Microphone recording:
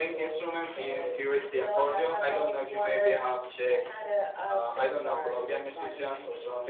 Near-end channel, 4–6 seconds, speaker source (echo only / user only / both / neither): echo only